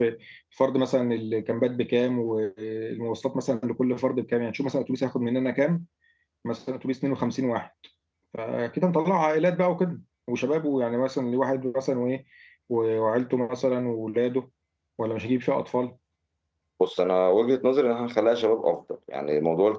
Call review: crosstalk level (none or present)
none